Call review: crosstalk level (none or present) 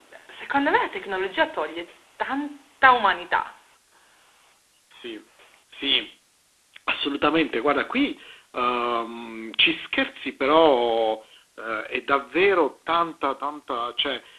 none